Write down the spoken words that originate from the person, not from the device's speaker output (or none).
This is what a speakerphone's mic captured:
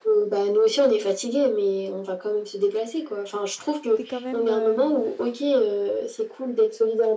t'es quand même euh,